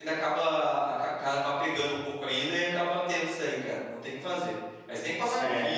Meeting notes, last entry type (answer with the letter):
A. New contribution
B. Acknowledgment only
B